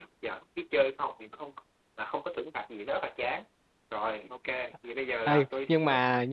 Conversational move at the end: taking over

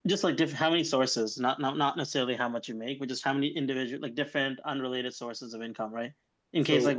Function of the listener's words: listening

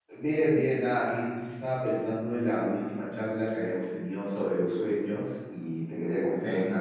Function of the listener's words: listening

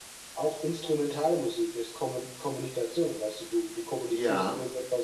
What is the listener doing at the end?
listening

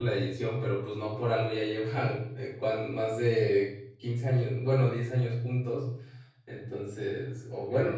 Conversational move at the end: listening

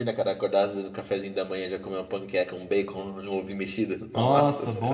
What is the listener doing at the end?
taking over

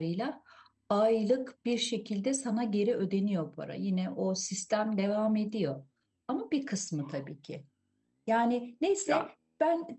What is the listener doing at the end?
listening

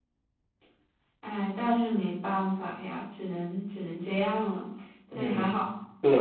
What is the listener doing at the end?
taking over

